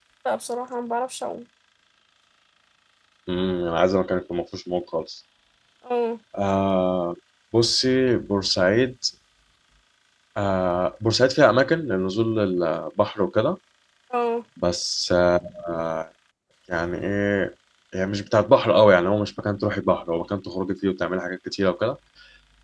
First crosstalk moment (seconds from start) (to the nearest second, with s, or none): none